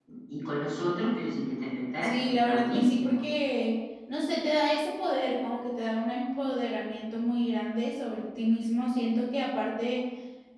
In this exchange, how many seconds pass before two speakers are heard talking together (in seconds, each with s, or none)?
2.0 s